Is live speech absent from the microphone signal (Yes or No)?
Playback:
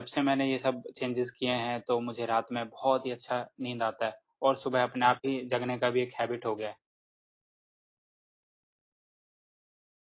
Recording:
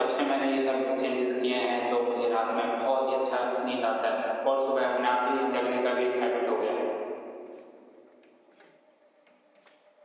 Yes